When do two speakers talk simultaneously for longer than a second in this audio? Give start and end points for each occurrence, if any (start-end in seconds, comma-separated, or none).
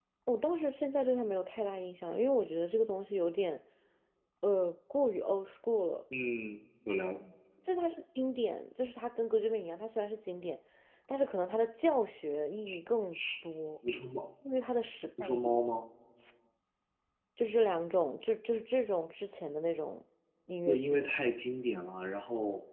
none